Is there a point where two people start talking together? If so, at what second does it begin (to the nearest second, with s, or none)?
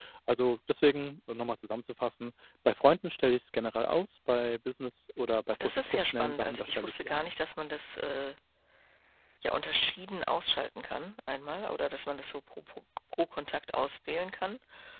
6 s